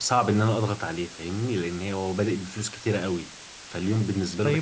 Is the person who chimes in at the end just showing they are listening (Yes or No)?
No